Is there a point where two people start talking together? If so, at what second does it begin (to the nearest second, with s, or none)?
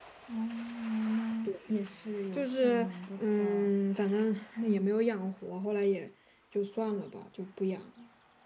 2 s